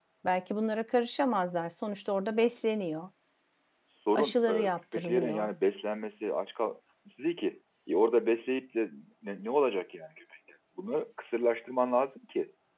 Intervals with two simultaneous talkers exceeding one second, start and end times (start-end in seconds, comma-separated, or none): 4.2-5.5